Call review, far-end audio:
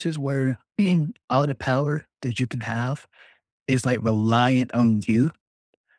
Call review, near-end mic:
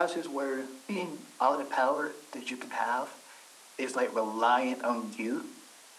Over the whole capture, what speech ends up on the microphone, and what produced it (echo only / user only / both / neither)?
echo only